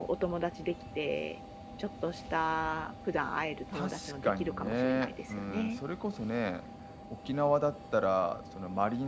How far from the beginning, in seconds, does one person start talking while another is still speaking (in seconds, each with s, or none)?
3.7 s